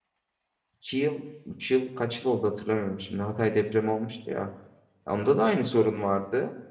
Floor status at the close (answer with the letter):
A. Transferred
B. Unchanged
B